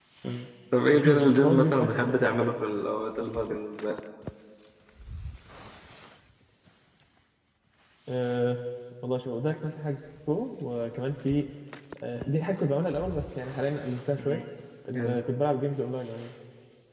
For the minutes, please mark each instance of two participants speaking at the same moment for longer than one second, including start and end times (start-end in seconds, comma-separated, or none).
1.0-2.2